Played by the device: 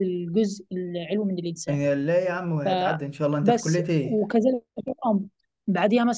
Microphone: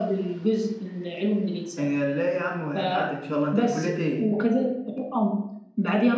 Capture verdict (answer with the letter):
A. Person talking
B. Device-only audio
B